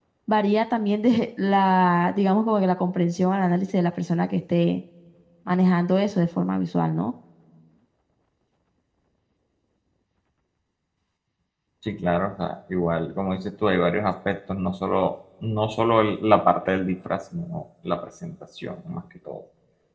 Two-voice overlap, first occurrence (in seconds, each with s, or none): none